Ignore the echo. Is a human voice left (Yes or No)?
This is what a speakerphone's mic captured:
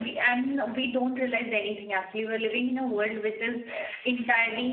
Yes